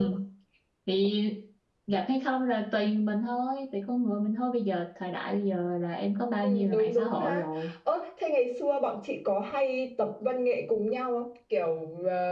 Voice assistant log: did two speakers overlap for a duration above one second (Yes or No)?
Yes